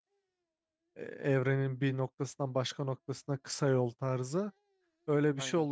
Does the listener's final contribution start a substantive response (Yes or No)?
No